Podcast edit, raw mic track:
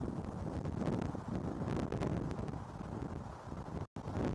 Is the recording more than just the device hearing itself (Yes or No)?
No